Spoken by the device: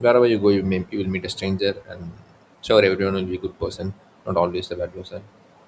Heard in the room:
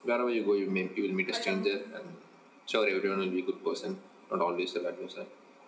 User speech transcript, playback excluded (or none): Hello.